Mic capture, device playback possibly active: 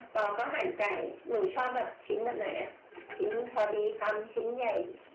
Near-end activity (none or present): none